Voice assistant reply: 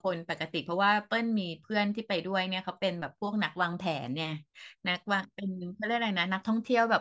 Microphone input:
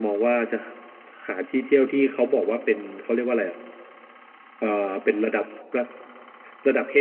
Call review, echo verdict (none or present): none